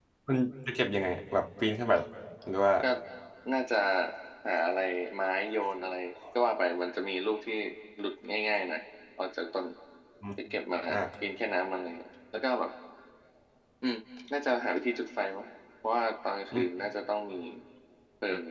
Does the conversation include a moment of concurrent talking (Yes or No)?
No